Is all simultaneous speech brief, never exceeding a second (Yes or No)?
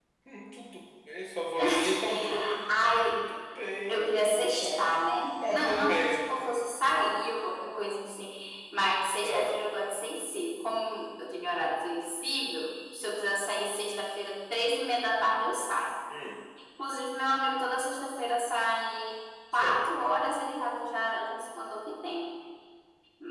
No